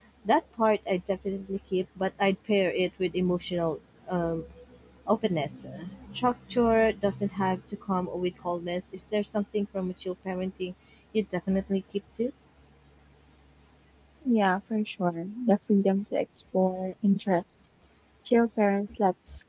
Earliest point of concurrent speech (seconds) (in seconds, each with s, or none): none